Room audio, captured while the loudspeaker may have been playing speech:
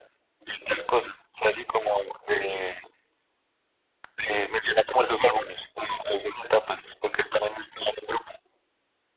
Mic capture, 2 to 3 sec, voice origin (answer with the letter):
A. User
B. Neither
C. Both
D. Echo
D